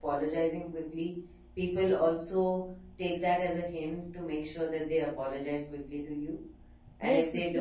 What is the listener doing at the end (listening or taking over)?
taking over